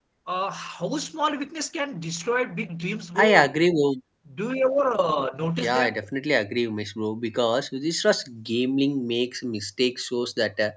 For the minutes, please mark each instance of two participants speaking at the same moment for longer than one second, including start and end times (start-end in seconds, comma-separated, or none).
none